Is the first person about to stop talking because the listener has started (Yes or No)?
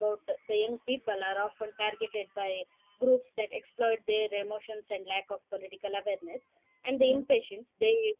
No